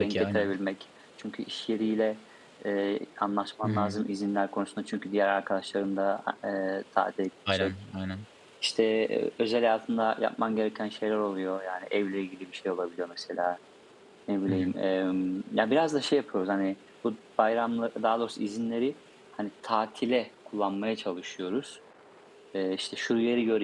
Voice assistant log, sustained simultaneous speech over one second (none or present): none